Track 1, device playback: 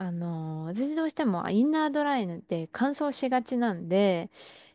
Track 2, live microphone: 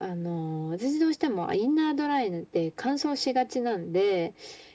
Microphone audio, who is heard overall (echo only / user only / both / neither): echo only